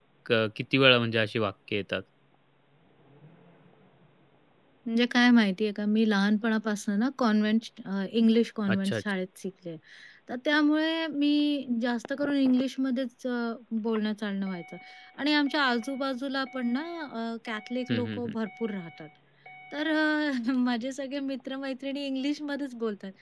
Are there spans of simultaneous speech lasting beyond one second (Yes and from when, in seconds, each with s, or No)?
No